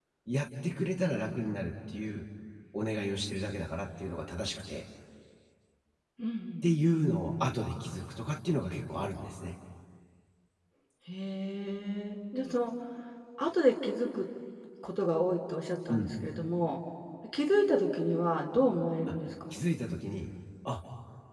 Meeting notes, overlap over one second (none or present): none